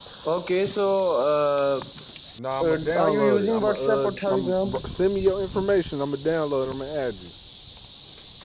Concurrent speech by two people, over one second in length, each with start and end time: 2.6-4.7

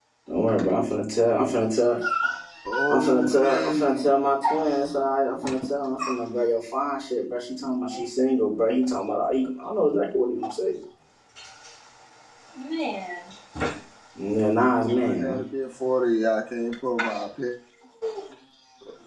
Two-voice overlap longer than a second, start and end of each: 2.9-4.1

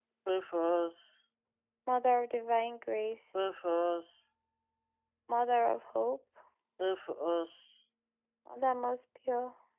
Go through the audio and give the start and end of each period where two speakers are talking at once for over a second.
none

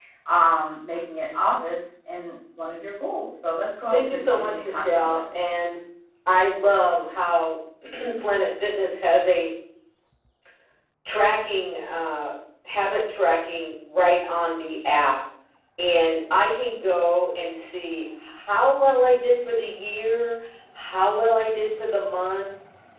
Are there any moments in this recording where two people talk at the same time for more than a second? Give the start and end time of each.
3.9-5.2

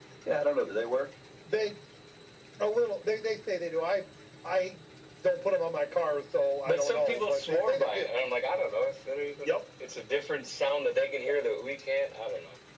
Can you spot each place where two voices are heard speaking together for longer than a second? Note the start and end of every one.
6.7-8.1

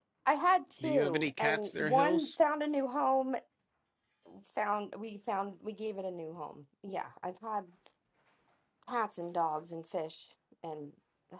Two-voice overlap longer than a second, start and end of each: 0.8-2.3

